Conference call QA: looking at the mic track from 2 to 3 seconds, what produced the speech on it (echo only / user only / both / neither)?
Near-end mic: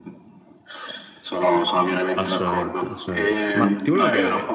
both